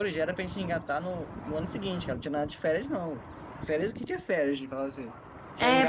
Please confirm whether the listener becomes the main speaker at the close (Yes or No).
Yes